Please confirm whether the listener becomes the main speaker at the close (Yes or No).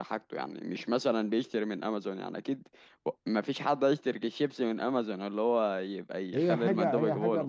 Yes